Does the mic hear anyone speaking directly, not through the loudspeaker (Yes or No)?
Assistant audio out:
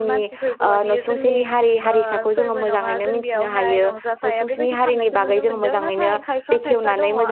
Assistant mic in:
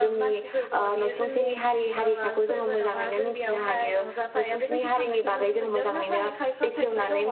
No